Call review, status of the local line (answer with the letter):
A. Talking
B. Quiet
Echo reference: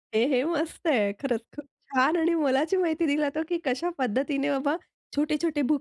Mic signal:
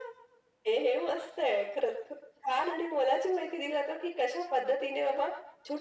B